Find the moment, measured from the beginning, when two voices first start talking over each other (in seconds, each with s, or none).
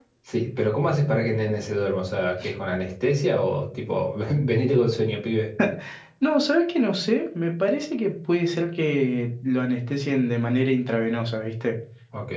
none